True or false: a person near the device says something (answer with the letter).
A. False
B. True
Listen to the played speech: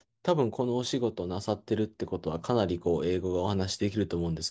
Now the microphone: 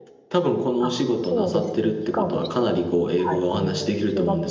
B